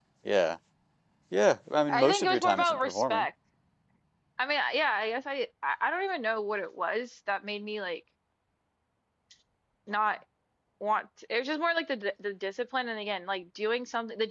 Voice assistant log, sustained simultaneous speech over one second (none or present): present